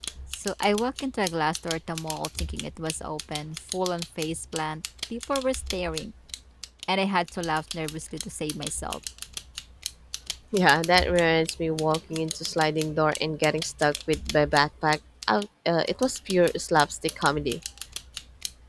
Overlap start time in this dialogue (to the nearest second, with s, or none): none